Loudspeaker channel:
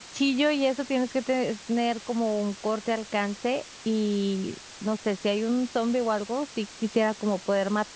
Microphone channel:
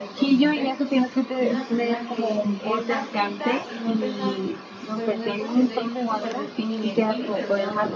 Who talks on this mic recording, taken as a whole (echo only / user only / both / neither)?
both